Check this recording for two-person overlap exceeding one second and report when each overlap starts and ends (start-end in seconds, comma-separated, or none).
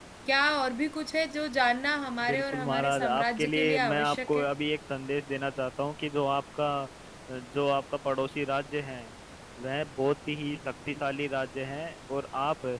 2.2-4.5